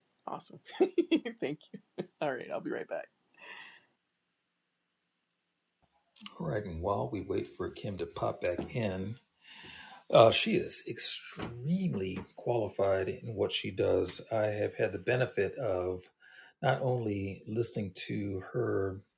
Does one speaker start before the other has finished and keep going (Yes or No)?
No